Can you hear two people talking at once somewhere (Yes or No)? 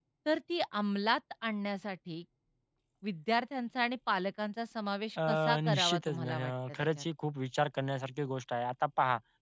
Yes